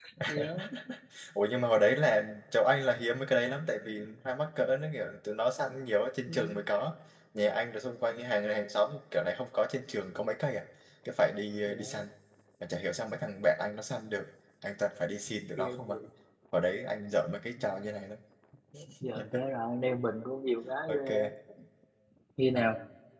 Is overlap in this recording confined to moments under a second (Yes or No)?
Yes